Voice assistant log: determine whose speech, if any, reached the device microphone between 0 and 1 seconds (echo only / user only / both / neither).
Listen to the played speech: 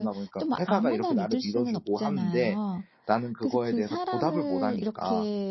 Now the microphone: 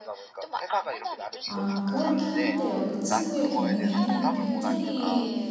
echo only